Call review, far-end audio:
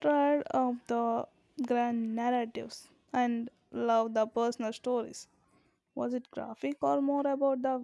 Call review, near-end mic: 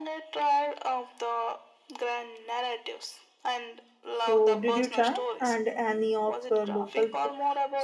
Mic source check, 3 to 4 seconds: echo only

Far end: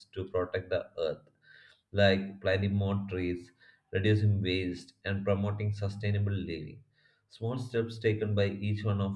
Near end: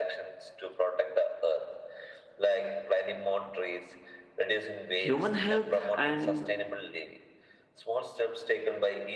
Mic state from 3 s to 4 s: echo only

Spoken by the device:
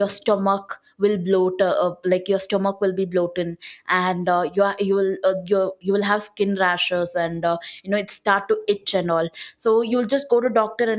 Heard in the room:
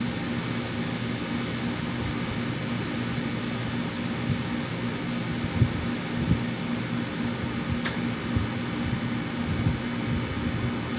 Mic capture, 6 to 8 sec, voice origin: neither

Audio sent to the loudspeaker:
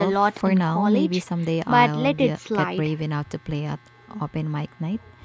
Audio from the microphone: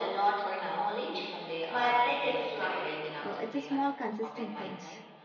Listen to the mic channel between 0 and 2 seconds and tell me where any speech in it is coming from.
echo only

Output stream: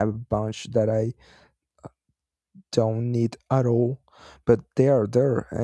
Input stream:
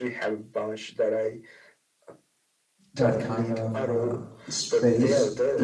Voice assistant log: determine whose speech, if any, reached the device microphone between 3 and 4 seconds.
both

